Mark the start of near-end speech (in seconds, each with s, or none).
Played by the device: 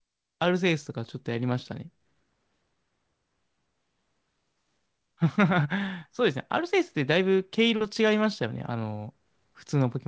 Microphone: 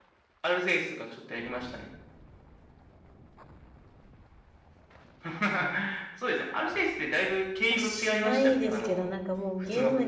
7.7 s